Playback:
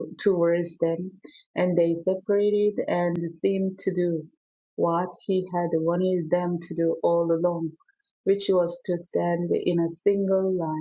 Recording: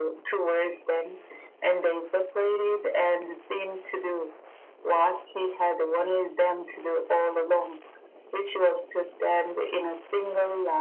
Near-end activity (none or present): none